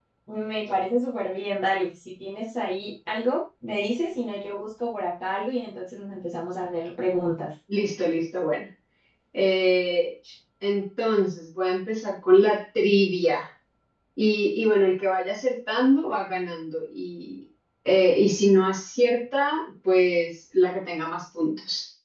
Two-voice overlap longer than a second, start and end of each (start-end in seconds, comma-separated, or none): none